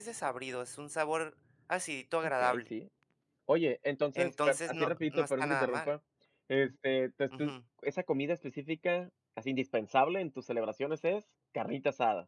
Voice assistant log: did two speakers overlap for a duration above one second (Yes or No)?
Yes